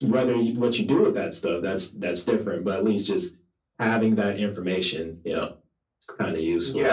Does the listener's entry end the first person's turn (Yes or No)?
Yes